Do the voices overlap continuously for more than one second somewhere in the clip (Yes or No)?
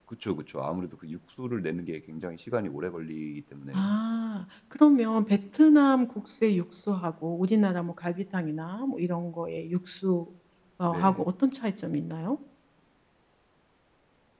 No